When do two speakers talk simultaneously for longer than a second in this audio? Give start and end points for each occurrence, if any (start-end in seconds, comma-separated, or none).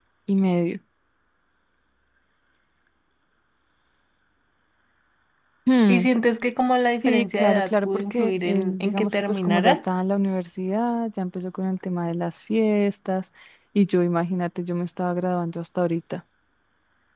7.0-9.8